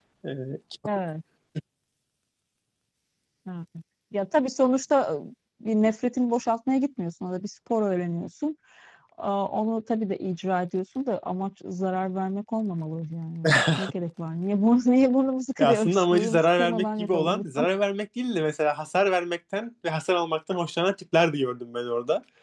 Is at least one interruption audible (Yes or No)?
Yes